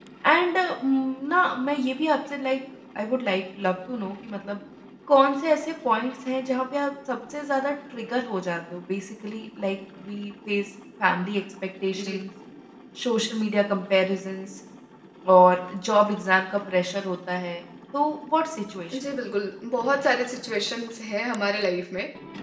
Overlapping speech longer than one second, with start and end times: none

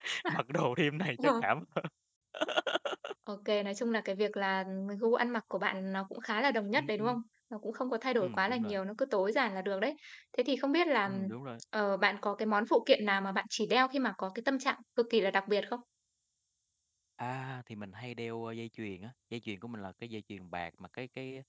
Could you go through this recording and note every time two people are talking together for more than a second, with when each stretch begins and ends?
none

